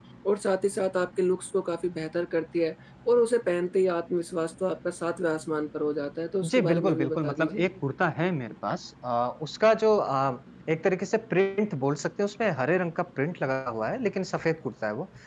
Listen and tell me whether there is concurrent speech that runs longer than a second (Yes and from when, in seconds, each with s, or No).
Yes, from 6.4 s